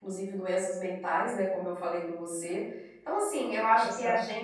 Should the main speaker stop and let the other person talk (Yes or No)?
No